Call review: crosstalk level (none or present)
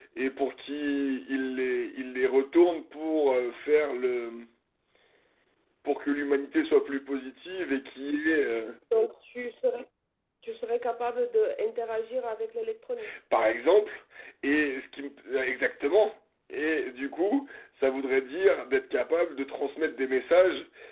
none